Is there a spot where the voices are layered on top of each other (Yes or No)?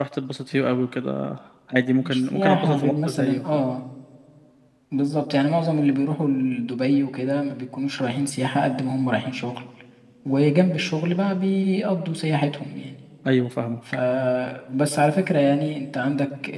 Yes